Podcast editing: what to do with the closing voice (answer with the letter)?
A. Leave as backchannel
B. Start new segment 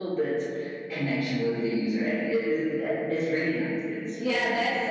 B